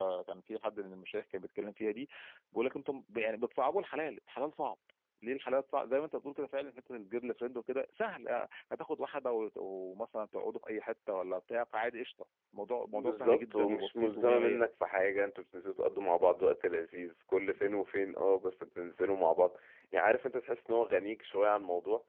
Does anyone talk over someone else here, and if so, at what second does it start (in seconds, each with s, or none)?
12.9 s